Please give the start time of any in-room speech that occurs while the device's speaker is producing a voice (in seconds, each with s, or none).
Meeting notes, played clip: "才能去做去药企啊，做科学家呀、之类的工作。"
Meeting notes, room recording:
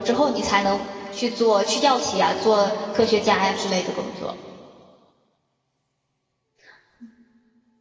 none